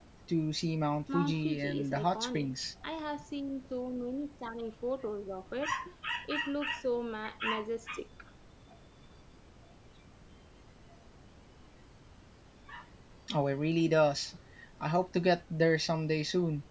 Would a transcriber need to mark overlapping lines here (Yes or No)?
Yes